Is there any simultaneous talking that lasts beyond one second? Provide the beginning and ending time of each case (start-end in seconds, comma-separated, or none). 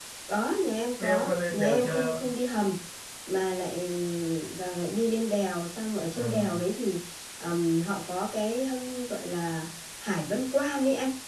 1.0-2.2